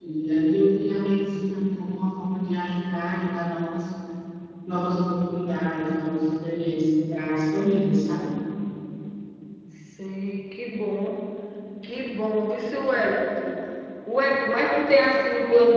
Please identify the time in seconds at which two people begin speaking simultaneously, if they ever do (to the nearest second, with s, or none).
none